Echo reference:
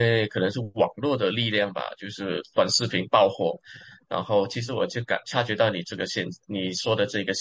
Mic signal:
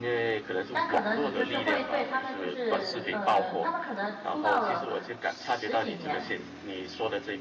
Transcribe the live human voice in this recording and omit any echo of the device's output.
但可能你就是会对他们，就是呃，他们可能出道了十几年，

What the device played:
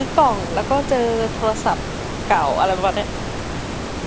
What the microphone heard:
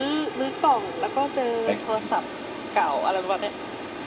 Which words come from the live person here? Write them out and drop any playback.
แบล็คพิง

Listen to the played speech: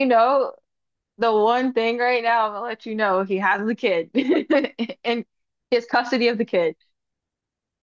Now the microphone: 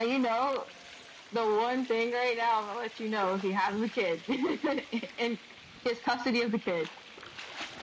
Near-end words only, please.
none

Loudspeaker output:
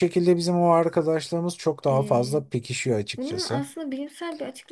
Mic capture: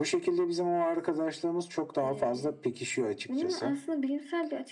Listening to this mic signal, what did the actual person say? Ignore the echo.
none

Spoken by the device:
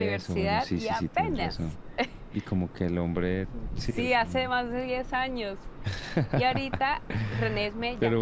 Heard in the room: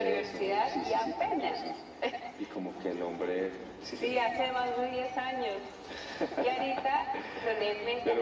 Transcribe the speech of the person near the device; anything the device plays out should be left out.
none

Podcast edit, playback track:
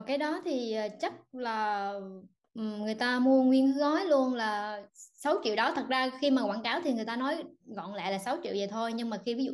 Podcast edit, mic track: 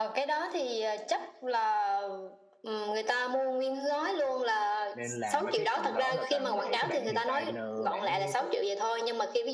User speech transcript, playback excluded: nên là mấy cái phần đó là toàn để cái bạn designer bạn ấy tự

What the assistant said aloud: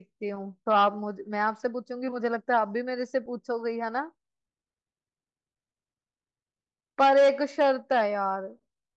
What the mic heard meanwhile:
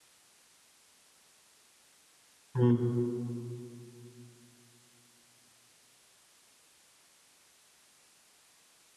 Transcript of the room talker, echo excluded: हम्म

